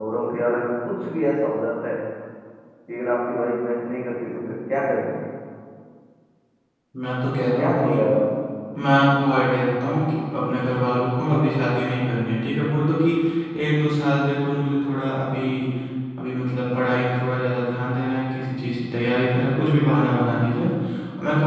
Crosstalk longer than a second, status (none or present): none